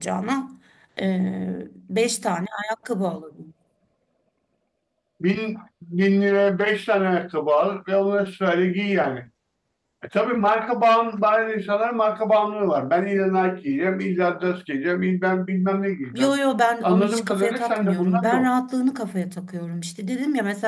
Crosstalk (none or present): present